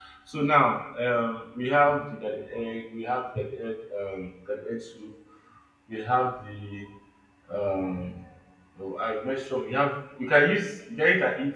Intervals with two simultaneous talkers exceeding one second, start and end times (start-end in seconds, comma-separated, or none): none